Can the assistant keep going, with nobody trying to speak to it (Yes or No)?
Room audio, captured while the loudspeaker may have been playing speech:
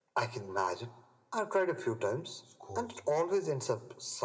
No